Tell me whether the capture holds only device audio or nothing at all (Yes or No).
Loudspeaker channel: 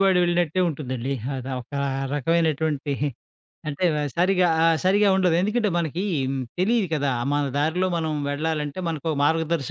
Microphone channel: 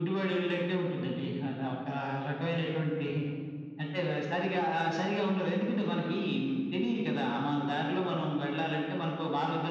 Yes